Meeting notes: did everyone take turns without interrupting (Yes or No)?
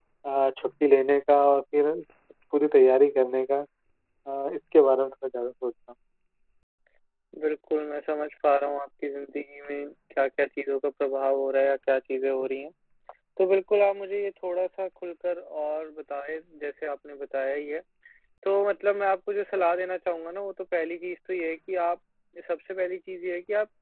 Yes